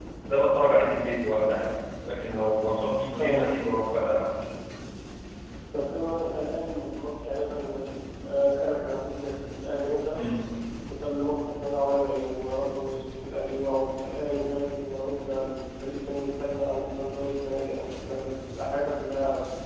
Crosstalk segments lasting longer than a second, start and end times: none

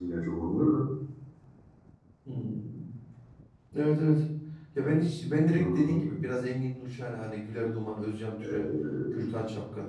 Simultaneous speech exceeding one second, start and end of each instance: none

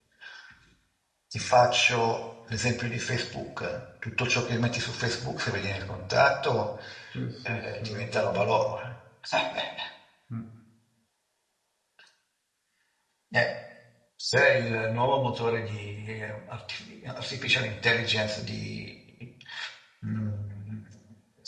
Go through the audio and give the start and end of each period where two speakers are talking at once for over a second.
7.5-8.9

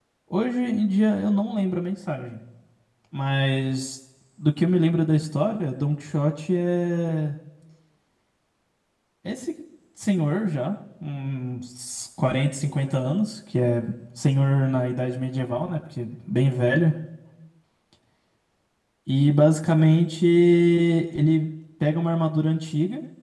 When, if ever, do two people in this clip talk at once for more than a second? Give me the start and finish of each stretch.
none

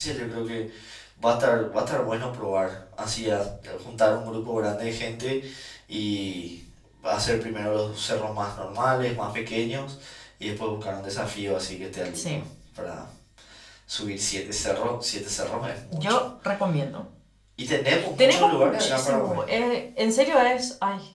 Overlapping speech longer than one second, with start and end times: 18.2-19.4

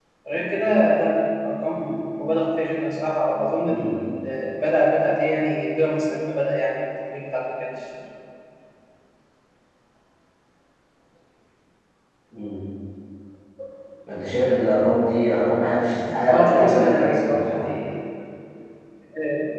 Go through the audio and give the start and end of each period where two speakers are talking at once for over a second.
16.2-17.6

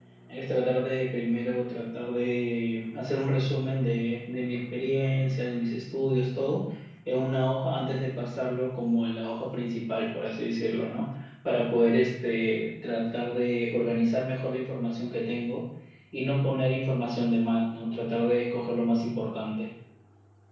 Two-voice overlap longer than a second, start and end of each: none

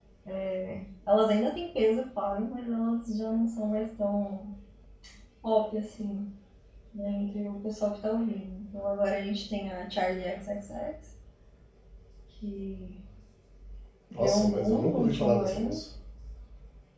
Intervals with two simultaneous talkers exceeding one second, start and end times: 14.1-15.8

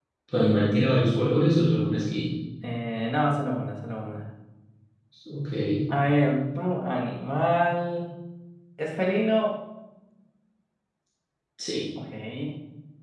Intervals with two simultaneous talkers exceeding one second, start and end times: none

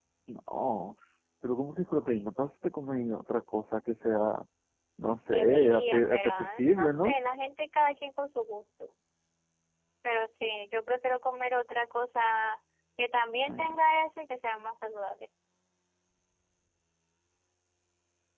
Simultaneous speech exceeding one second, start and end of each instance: 5.3-7.2

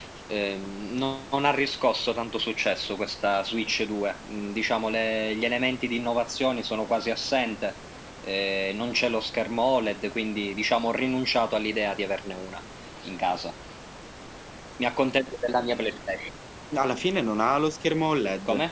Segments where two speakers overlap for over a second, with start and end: none

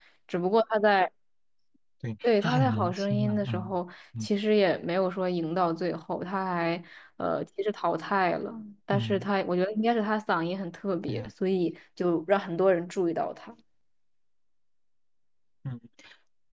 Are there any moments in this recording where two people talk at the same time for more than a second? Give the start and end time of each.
2.2-3.8

